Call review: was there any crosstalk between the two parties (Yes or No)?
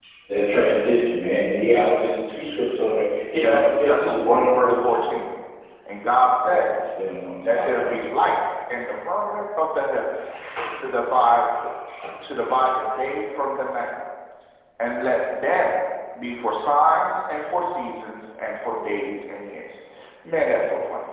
Yes